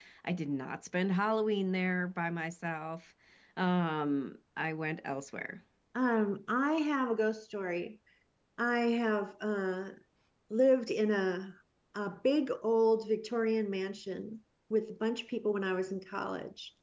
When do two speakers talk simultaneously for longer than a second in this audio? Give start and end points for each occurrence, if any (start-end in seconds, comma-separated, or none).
none